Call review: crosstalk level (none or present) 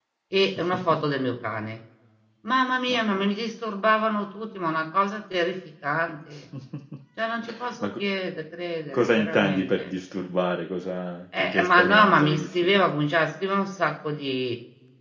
present